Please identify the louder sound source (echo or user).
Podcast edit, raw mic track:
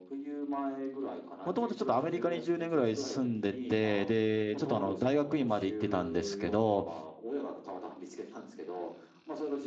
user